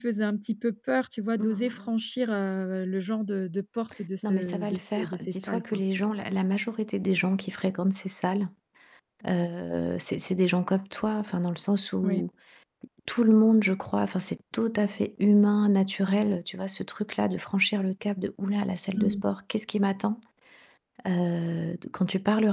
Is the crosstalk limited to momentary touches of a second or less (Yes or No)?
No